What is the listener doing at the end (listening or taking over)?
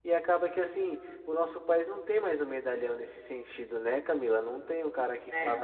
listening